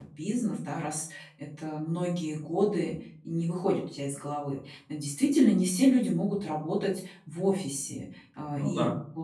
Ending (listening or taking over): listening